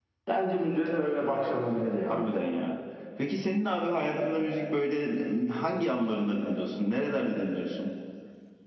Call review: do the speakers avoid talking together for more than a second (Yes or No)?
Yes